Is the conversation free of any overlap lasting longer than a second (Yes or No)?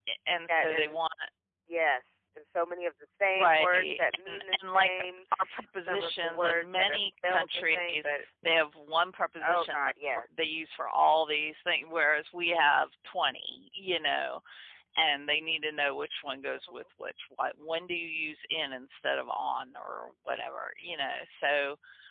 No